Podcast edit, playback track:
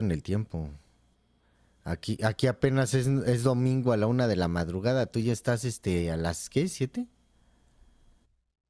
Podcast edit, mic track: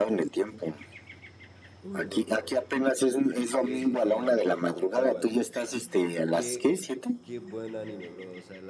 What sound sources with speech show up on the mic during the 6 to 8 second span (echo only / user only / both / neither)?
both